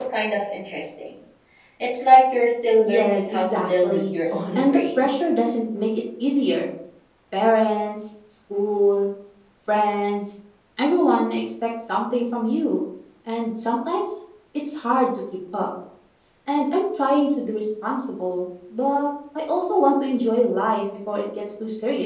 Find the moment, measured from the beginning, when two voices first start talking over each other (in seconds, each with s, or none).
2.8 s